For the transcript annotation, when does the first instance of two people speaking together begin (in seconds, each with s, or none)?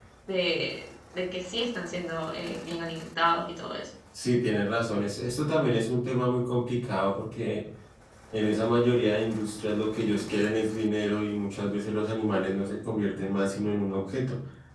none